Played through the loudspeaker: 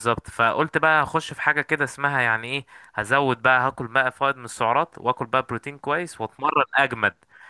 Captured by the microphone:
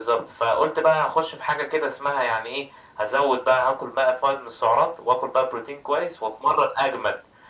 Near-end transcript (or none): none